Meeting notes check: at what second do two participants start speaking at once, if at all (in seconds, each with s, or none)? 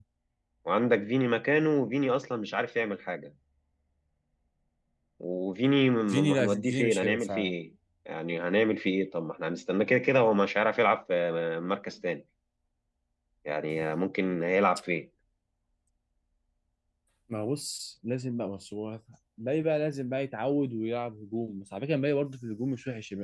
6.1 s